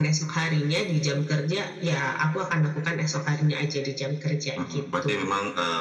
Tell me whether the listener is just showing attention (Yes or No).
No